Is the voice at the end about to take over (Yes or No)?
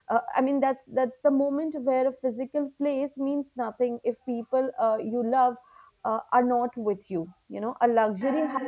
No